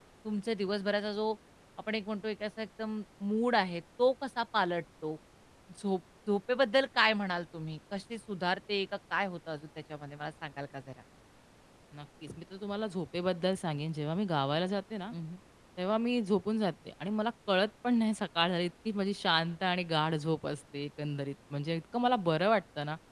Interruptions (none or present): none